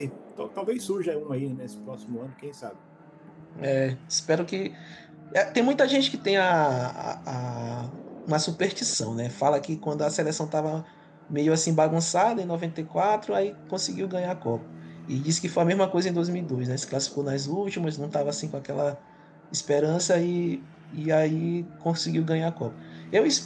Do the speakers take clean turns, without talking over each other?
Yes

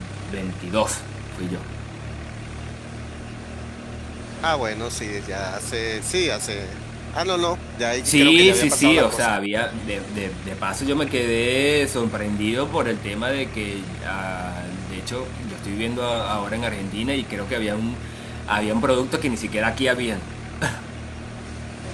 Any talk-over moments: Yes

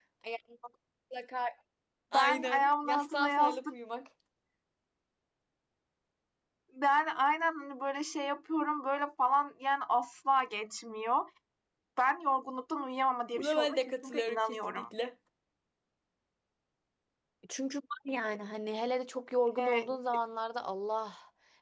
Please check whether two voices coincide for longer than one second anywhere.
Yes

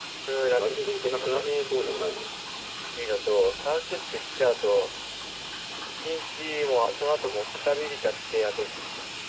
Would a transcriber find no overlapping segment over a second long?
No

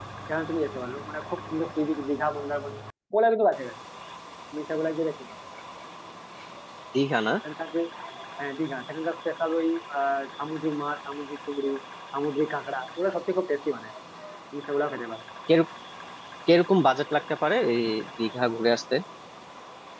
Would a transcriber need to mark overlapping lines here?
No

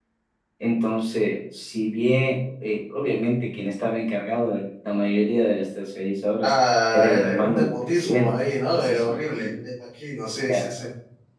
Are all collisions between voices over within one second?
No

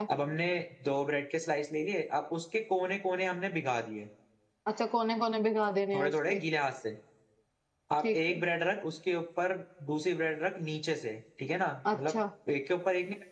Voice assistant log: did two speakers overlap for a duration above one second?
No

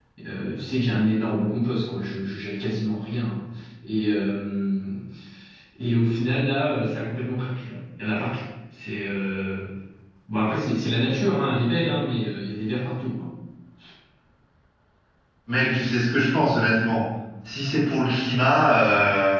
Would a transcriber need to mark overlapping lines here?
No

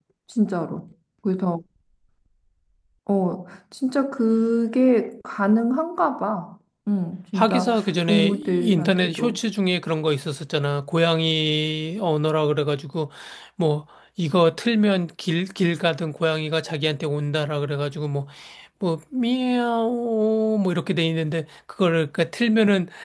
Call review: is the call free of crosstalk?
No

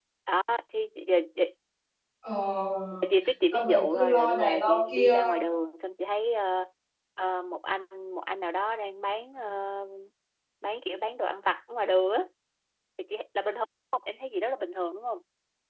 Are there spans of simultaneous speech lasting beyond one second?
Yes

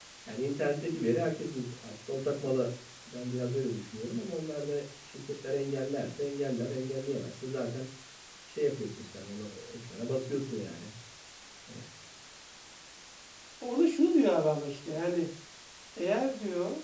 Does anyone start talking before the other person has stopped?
No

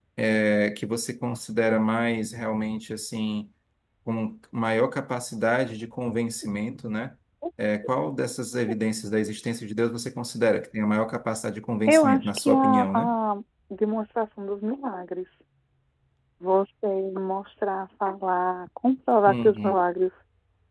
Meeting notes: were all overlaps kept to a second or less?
No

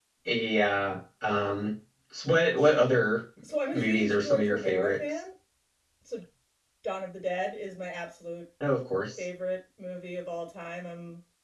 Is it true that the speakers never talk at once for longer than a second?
No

